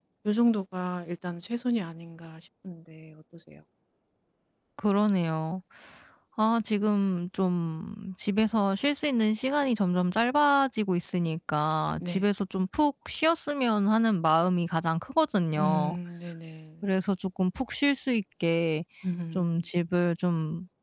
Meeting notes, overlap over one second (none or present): none